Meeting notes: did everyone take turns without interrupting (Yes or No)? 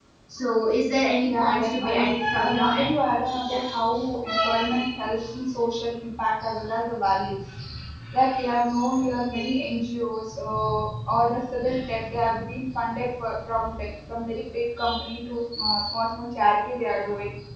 No